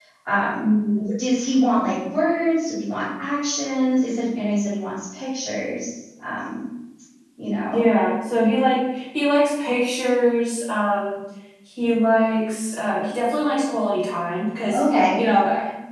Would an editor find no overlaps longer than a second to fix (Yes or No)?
Yes